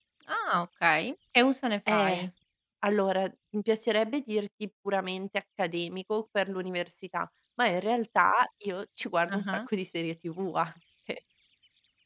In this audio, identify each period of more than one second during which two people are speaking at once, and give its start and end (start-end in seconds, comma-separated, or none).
none